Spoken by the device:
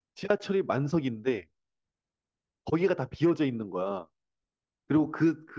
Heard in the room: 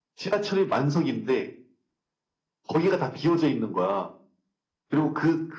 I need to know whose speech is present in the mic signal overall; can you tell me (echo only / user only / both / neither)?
echo only